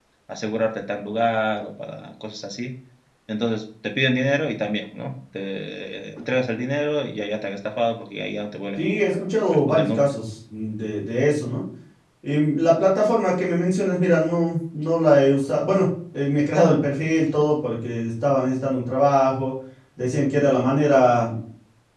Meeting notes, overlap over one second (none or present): present